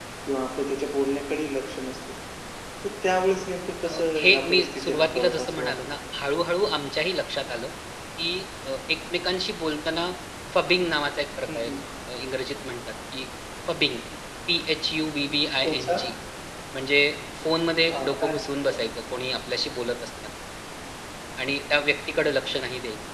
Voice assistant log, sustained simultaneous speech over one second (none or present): present